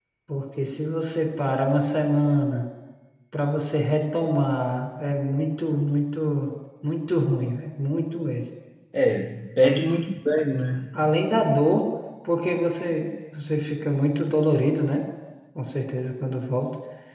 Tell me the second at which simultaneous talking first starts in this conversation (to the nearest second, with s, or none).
none